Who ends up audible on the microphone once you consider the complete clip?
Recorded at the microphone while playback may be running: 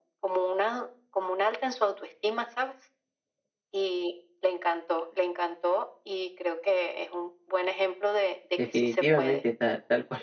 both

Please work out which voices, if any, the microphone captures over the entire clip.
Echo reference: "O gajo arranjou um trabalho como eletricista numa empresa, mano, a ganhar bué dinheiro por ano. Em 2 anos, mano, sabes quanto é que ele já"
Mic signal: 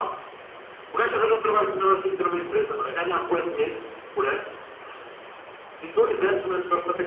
echo only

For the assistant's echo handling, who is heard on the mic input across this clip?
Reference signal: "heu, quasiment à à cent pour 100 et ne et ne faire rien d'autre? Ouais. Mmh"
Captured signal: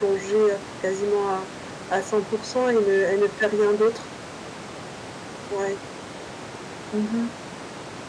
echo only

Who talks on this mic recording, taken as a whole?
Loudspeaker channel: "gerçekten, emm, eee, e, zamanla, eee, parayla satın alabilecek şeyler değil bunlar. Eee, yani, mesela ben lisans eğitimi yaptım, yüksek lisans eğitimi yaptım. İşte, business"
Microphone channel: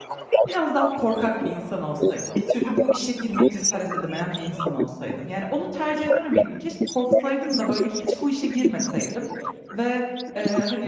both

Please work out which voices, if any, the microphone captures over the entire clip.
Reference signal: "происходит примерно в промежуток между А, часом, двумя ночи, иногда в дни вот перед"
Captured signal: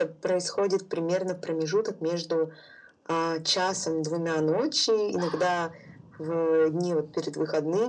echo only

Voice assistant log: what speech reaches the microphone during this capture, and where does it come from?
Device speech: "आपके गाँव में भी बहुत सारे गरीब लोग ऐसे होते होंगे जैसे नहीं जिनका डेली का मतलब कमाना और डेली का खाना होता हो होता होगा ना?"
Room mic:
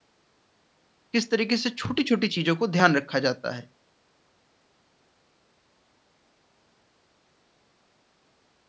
user only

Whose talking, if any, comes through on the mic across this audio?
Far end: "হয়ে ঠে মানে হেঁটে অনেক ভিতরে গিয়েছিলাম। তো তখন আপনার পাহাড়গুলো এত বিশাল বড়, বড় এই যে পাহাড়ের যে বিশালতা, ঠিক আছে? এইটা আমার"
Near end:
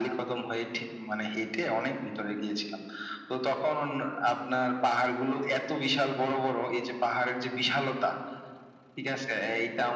echo only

